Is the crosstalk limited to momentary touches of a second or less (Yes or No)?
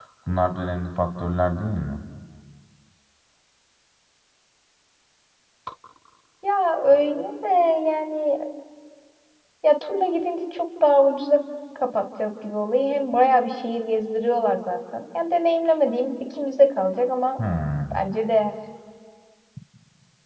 Yes